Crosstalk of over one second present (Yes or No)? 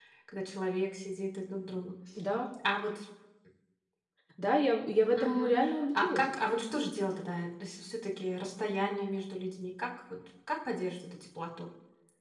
No